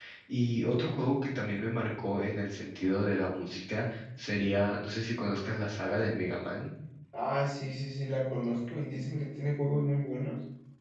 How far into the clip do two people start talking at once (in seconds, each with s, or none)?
none